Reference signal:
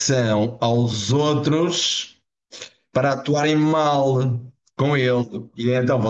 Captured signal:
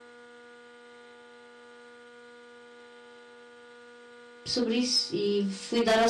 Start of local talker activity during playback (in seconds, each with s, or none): 4.5 s